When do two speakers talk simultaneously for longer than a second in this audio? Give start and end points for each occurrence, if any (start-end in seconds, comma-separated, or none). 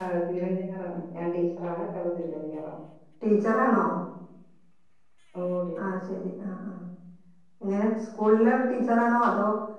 none